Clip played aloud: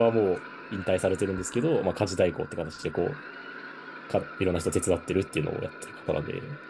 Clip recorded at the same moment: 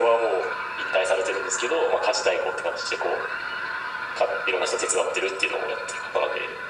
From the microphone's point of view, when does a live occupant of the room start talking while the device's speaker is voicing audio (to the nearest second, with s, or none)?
none